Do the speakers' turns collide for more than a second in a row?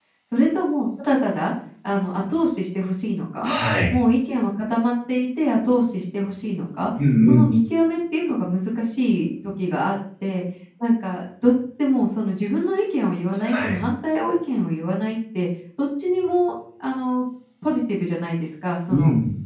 No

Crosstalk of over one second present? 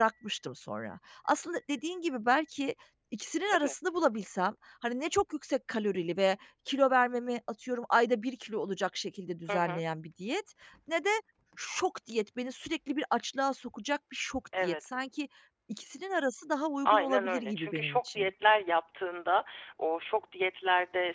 Yes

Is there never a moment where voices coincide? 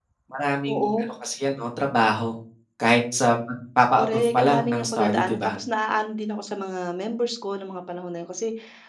No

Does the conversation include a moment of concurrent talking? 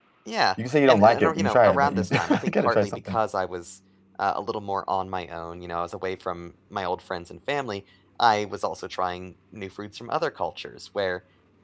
Yes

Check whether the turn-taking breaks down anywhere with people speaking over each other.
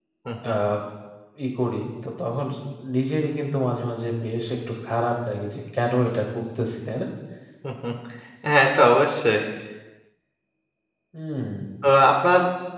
No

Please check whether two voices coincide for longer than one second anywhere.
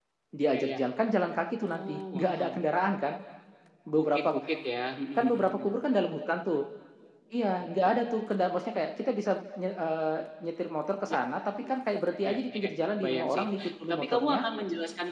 Yes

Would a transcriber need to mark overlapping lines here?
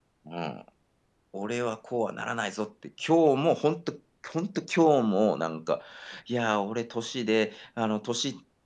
No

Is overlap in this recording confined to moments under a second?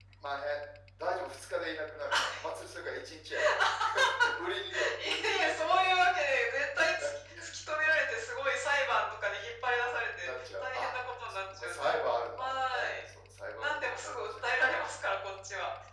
No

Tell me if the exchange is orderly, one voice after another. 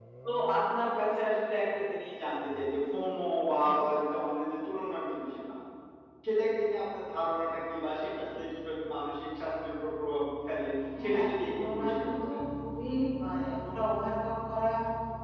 No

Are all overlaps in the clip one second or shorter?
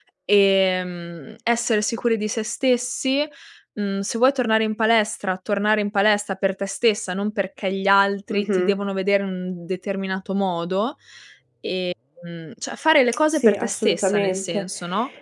No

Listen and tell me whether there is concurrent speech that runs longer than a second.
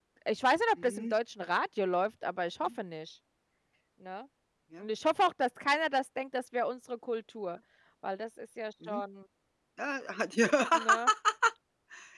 No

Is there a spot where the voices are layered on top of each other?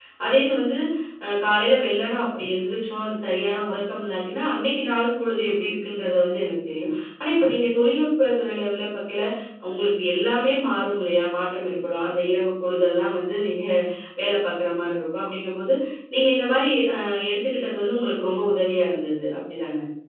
No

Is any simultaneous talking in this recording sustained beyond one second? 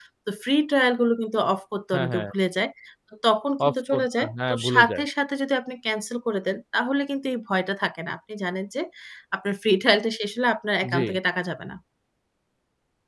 Yes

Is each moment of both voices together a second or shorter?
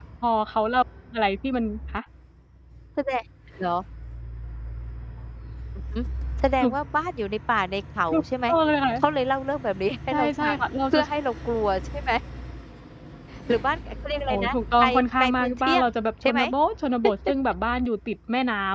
No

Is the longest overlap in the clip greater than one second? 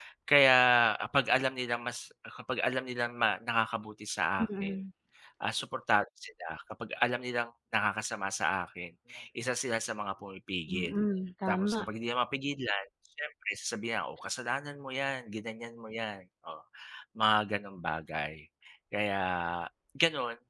No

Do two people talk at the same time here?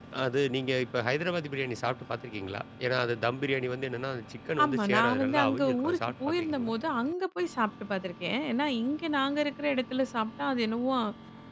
Yes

